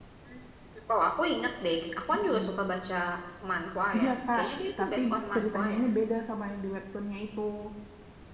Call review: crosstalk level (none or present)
present